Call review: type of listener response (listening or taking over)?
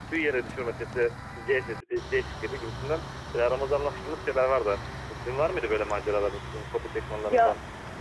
taking over